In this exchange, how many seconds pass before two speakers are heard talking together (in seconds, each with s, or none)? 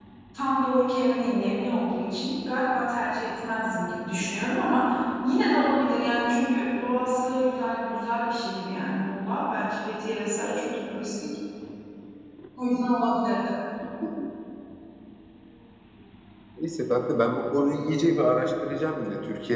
none